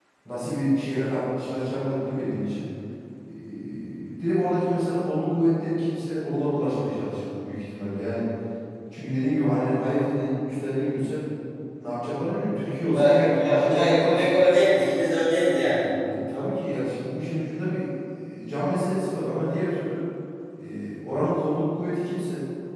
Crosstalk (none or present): present